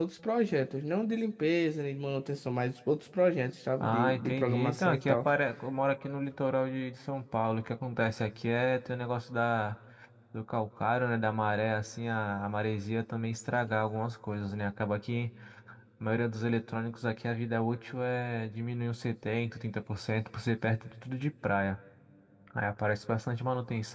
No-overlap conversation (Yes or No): No